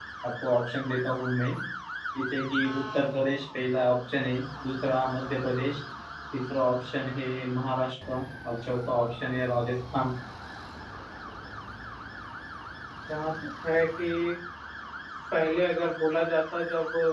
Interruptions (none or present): none